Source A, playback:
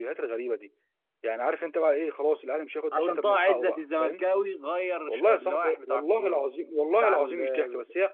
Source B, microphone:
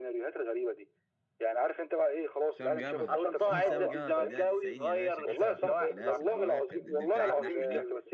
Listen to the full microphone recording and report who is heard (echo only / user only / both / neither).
both